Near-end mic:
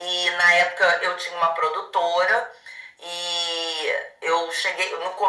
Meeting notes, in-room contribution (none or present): none